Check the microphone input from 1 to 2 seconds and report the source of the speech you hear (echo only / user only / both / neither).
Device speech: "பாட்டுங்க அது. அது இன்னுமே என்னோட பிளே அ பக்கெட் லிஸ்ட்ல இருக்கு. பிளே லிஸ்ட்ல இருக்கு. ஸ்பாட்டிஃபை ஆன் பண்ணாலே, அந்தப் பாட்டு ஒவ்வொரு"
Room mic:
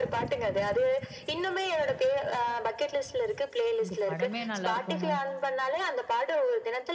echo only